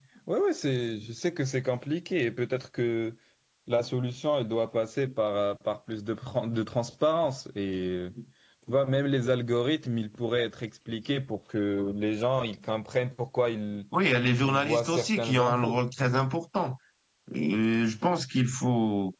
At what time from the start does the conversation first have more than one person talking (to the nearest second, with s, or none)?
14 s